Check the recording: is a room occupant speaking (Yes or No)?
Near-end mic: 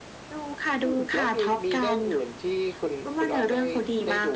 No